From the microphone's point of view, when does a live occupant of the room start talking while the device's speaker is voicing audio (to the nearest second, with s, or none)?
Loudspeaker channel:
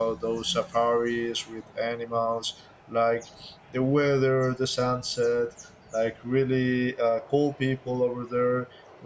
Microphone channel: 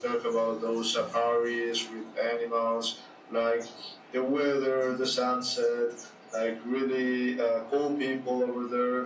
none